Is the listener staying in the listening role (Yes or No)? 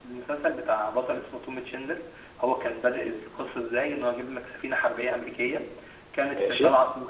Yes